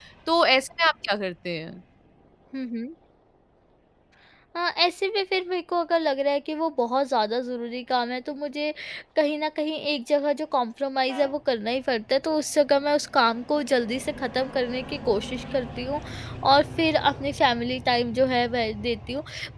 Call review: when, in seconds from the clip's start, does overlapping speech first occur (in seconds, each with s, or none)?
none